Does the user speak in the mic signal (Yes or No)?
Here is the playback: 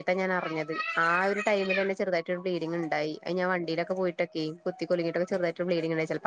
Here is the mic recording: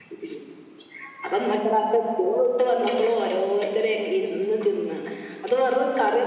Yes